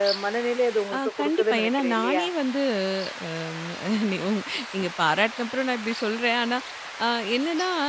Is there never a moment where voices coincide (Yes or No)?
No